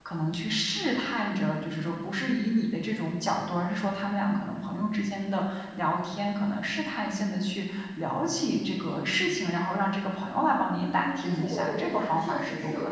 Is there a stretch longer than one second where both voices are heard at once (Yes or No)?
Yes